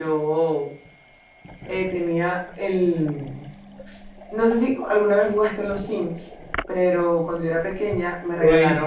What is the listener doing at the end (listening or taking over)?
listening